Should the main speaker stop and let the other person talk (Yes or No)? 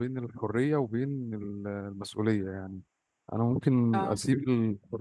No